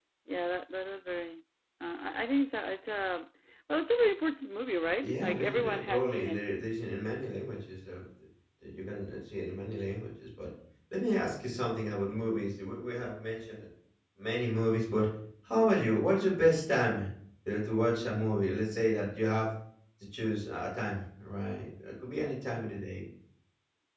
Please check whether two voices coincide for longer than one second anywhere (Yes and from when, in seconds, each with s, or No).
Yes, from 5.0 s